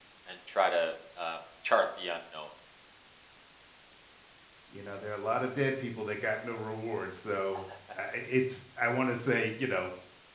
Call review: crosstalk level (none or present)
none